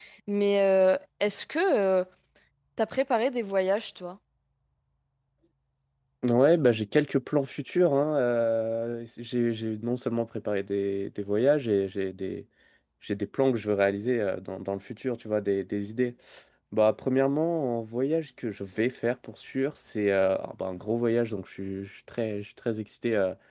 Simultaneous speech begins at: none

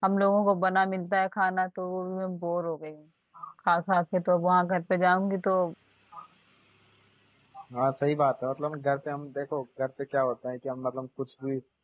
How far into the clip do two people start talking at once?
none

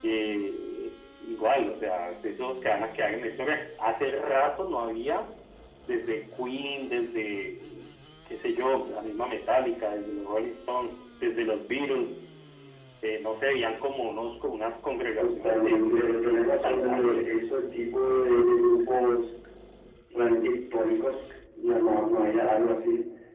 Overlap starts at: 15 s

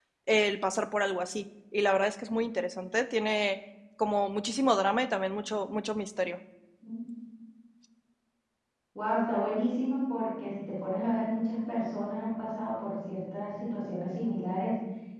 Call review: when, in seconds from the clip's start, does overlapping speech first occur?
none

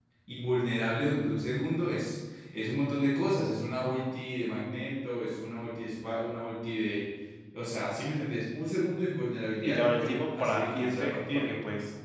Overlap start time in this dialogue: 10 s

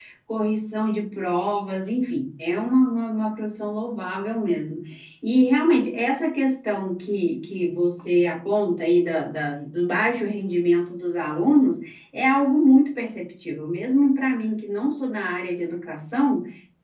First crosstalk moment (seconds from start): none

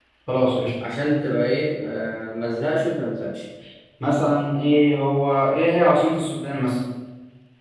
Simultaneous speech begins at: none

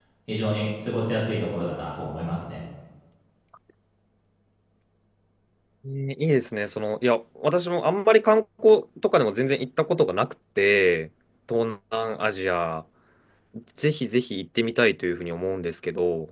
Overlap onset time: none

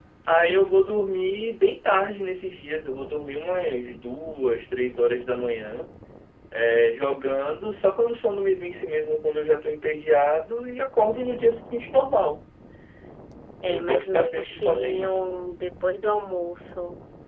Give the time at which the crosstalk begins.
14 s

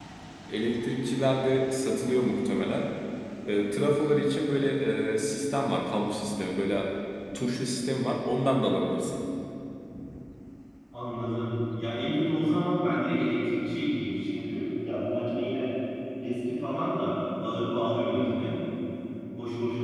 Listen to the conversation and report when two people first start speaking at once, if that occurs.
none

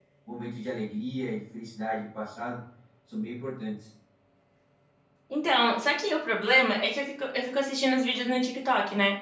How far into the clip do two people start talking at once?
none

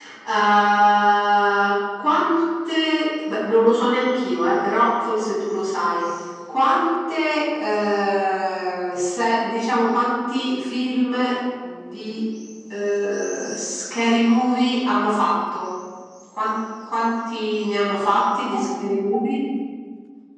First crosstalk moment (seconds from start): none

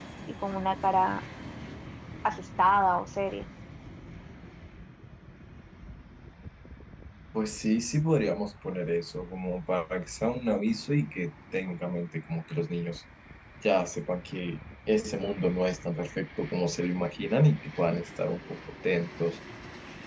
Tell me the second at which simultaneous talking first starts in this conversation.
none

